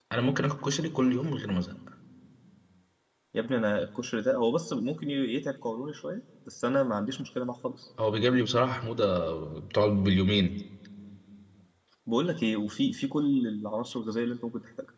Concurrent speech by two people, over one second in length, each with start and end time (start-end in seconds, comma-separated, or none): none